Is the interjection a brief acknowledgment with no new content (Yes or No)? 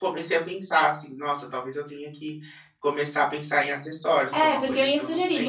No